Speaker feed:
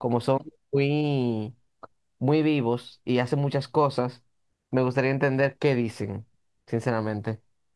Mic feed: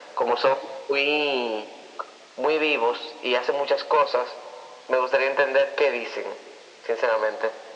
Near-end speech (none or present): none